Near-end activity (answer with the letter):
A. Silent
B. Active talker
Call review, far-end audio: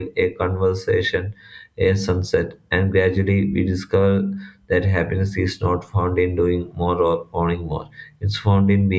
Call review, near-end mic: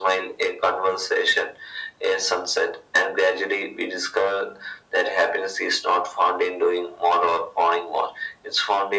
A